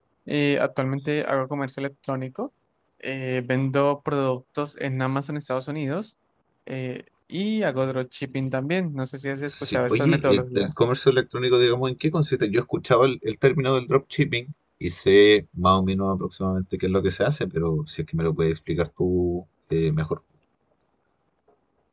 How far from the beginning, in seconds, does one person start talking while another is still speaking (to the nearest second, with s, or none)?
9 s